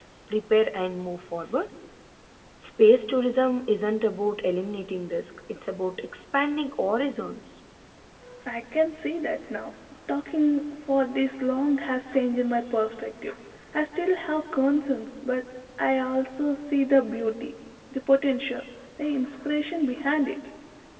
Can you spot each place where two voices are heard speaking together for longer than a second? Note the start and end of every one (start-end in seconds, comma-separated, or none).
none